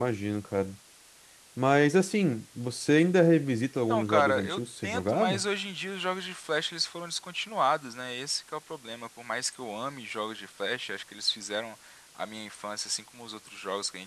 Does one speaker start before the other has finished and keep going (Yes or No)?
Yes